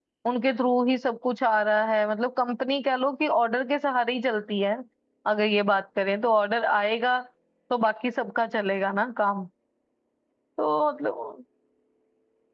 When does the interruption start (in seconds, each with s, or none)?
none